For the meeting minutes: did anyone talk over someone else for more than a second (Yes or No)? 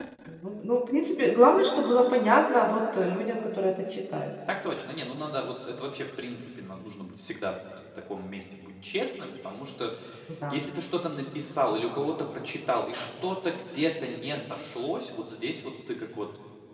No